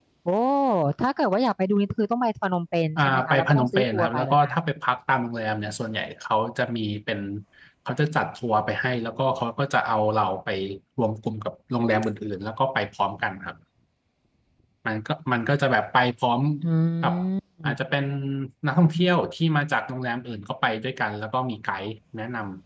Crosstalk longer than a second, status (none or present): present